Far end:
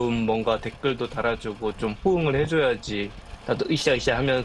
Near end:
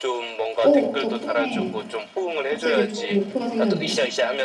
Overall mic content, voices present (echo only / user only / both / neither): both